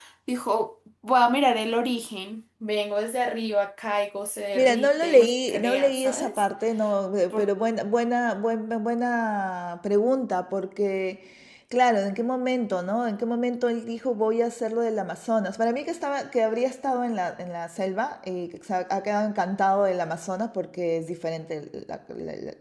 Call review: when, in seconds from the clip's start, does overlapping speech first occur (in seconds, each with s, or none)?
4.5 s